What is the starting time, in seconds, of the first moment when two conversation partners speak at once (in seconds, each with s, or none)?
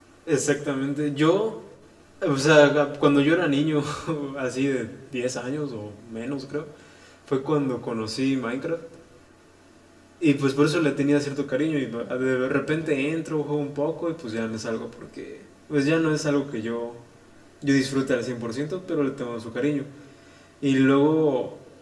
none